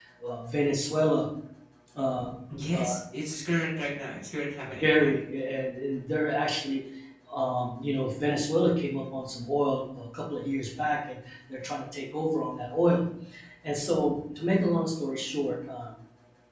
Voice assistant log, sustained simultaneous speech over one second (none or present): none